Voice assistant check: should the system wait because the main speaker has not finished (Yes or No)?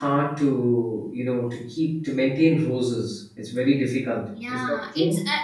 No